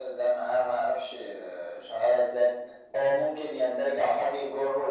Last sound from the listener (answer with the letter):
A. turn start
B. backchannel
B